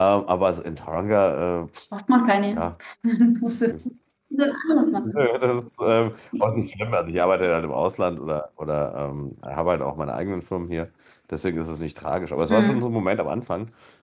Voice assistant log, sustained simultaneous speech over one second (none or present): none